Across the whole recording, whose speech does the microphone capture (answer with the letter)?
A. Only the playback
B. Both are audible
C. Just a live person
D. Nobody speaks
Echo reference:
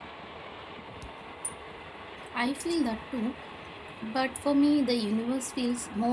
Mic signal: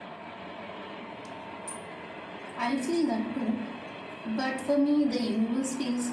A